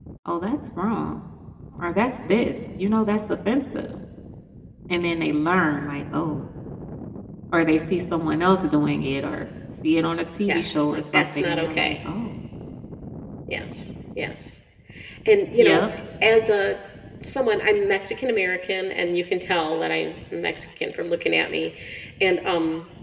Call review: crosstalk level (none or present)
present